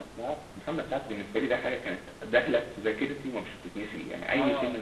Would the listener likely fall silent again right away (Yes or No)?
No